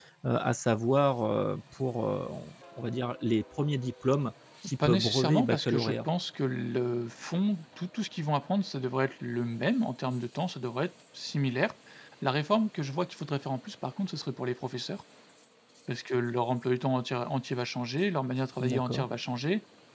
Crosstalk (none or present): present